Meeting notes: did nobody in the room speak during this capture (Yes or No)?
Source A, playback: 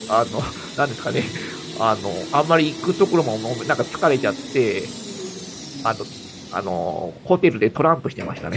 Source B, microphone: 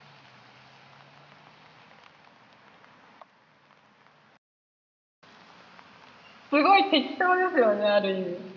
No